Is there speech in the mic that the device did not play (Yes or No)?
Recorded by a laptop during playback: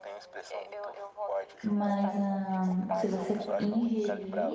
Yes